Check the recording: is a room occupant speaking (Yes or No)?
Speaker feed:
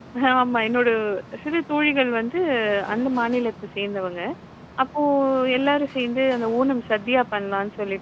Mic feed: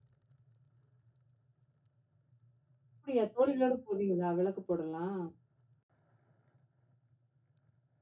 Yes